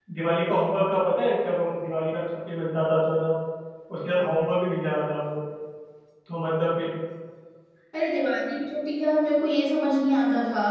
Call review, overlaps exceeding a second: none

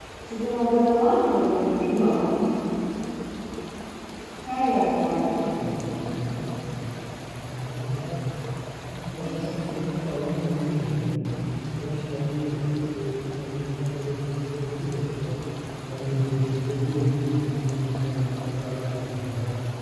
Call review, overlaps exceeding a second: none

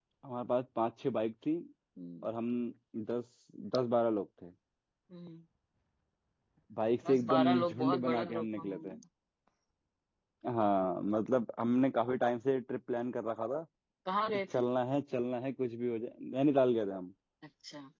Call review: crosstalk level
present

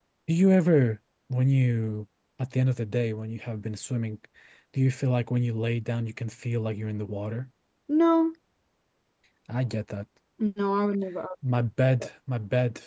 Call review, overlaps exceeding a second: none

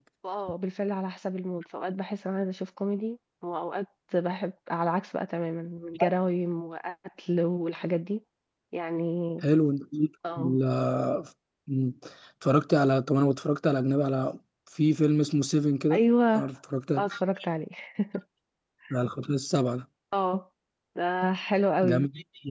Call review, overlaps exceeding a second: none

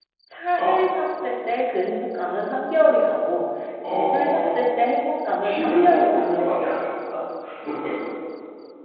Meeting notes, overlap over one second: present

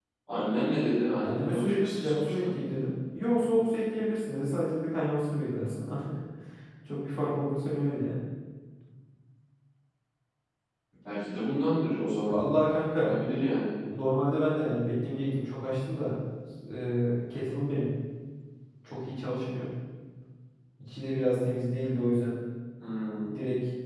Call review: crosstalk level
present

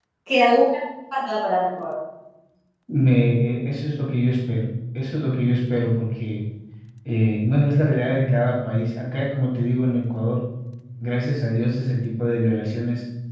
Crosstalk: none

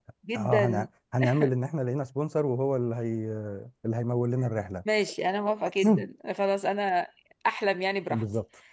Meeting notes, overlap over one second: none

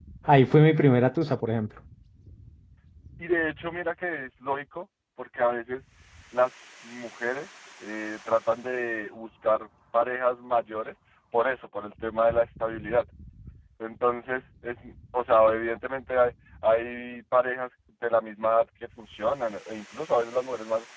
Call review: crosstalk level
none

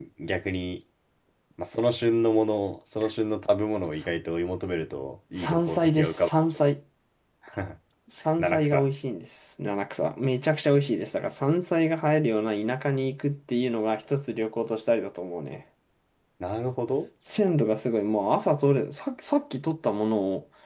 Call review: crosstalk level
present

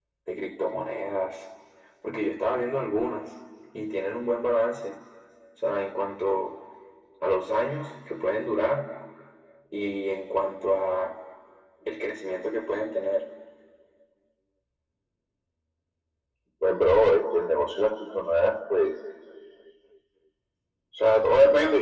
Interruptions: none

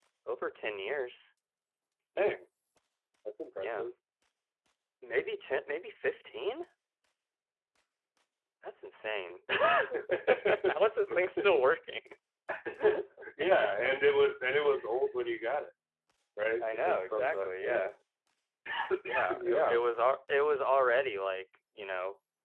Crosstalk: present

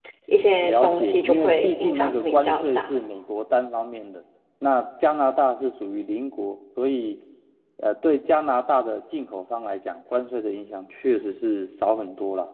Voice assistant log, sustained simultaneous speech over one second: present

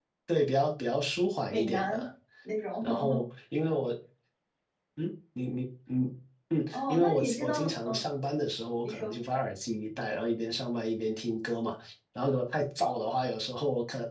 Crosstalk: present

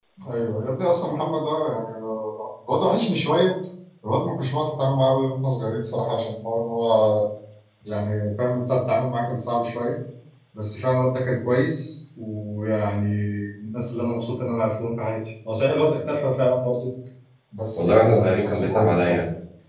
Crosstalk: present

